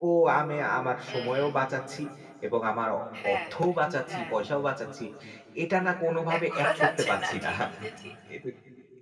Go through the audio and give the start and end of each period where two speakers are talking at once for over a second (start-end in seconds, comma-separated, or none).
6.3-7.5